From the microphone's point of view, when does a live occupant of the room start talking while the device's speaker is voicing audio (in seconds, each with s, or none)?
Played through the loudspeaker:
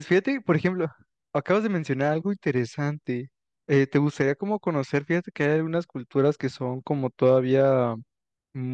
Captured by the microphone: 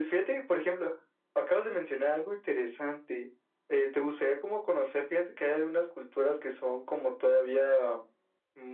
none